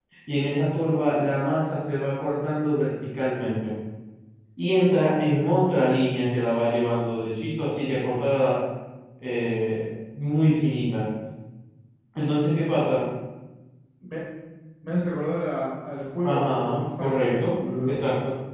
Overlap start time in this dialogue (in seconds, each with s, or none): 16.2 s